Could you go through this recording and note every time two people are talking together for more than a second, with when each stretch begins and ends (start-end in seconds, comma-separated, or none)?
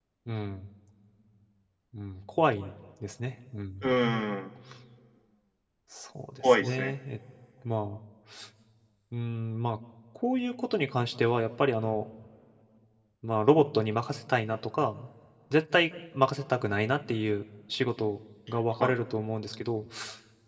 none